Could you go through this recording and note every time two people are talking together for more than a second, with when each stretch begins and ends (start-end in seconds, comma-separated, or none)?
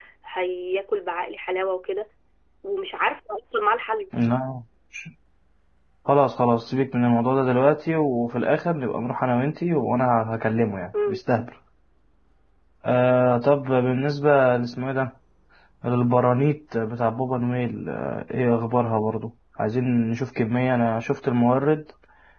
none